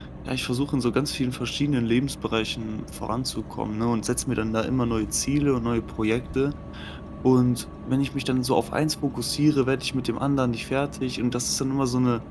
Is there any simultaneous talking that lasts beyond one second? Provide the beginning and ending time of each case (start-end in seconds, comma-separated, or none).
none